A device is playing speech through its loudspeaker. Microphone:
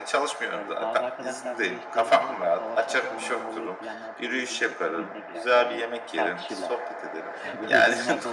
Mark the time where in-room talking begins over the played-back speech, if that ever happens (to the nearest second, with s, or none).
1 s